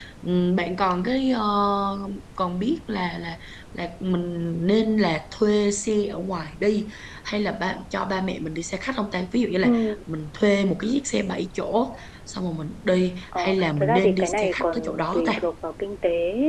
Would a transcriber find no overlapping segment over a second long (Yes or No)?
No